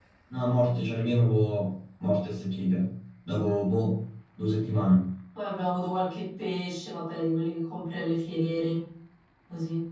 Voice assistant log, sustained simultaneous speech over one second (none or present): none